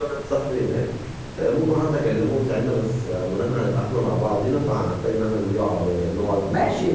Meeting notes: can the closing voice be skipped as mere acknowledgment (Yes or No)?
No